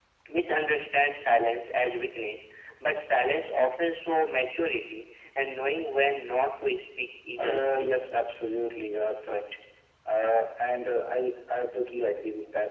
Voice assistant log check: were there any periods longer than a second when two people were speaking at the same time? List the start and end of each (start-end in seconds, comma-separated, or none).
none